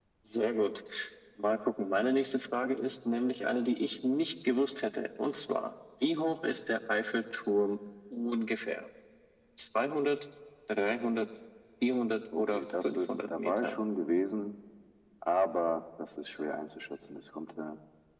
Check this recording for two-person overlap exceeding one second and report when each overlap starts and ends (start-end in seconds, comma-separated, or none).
12.4-13.8